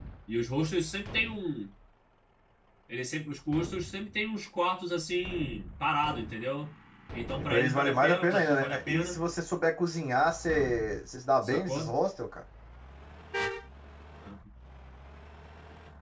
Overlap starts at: 7.4 s

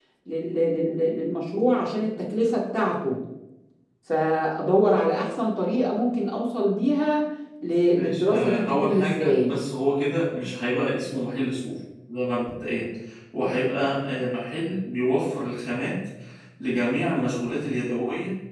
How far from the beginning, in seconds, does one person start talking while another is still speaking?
8.0 s

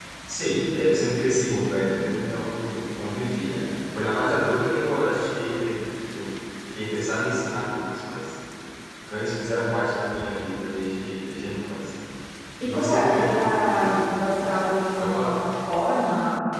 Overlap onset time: 12.6 s

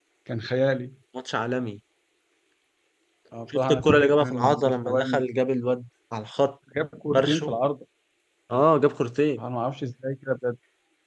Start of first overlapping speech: 3.7 s

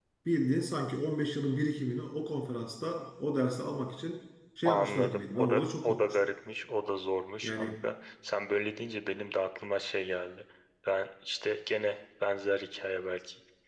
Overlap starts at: 4.7 s

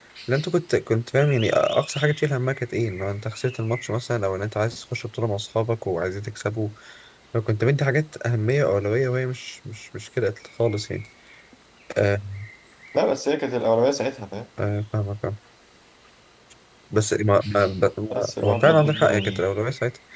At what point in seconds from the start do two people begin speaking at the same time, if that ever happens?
18.1 s

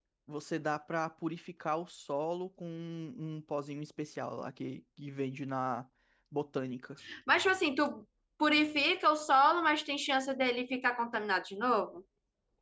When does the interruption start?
none

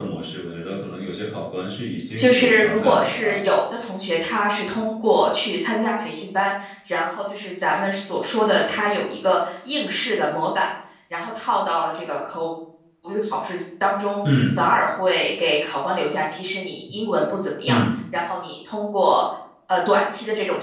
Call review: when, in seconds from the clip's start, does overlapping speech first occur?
2.1 s

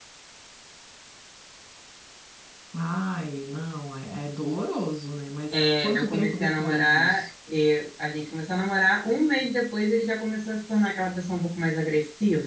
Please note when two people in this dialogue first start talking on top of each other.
5.5 s

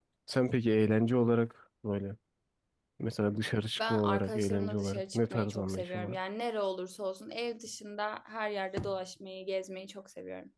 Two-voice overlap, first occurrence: 3.9 s

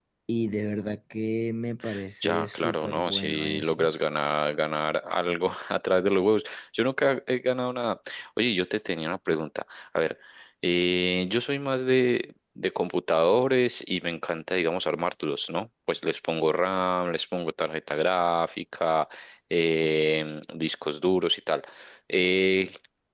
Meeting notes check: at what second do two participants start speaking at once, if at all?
2.2 s

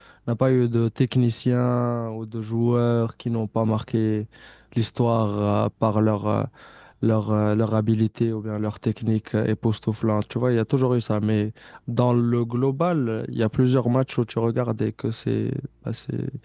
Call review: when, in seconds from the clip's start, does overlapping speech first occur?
none

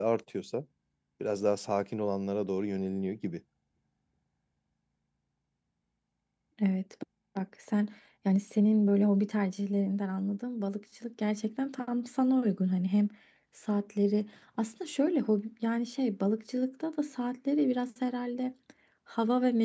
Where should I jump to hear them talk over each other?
none

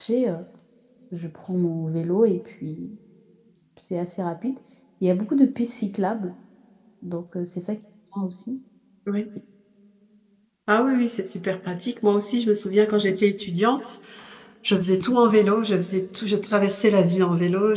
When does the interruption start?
none

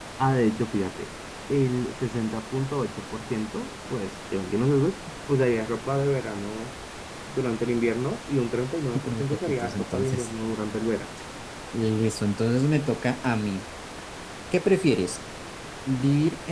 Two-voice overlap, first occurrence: 8.9 s

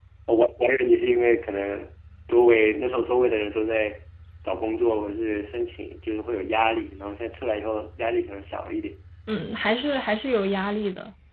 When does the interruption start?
none

